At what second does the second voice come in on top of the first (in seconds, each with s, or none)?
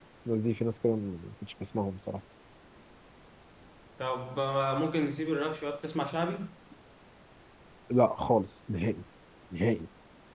none